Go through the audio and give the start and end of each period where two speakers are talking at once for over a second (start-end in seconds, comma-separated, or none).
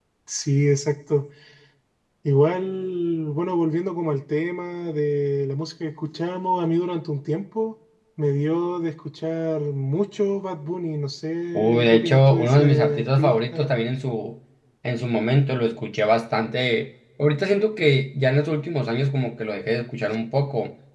11.6-13.7